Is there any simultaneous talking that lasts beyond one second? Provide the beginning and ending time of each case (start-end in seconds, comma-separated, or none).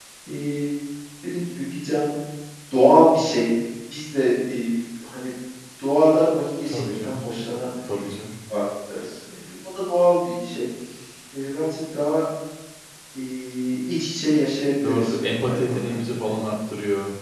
14.8-16.1